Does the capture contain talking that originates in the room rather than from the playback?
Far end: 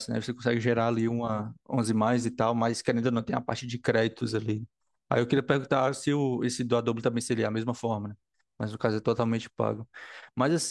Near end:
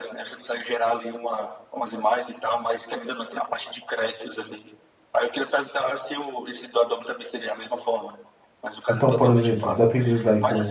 Yes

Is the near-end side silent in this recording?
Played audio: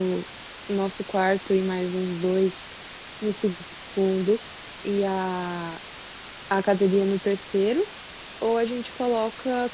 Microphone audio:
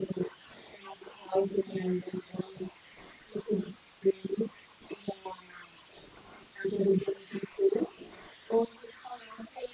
Yes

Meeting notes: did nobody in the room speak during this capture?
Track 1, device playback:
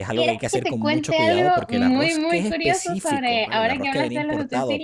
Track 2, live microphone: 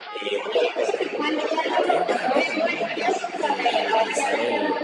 No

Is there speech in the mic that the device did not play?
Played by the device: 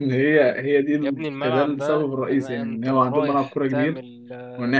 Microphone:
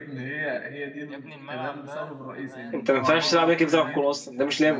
Yes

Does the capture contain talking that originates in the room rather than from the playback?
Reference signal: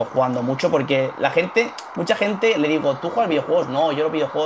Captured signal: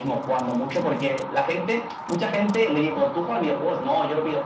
No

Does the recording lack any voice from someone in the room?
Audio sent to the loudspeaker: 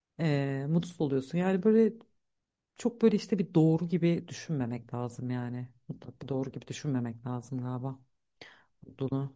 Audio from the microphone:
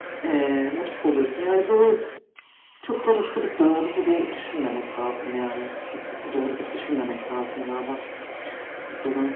Yes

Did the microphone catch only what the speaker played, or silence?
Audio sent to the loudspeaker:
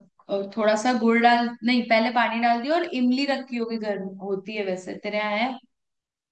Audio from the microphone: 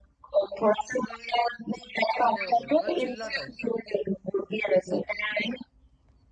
No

